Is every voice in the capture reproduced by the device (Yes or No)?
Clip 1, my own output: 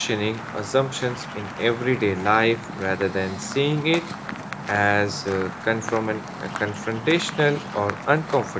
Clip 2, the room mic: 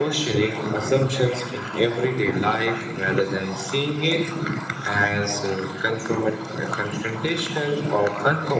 No